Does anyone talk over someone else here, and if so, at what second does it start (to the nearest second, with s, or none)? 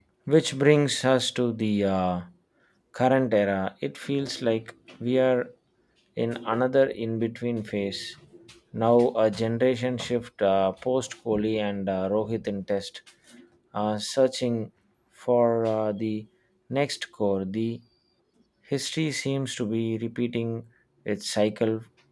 none